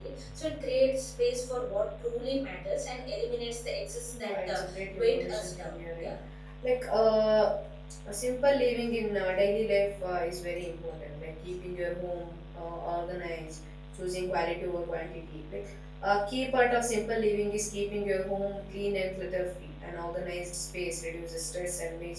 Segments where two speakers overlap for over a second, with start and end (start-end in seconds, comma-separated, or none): 4.2-6.1